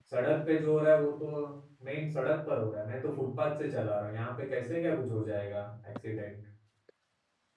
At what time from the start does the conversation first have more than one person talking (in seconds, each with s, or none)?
none